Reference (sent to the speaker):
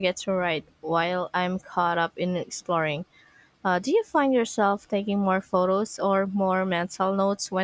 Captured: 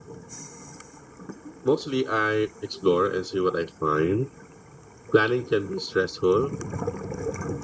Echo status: none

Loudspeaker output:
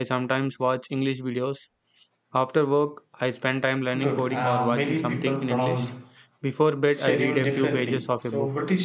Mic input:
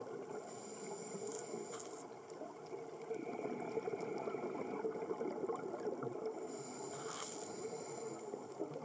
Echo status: none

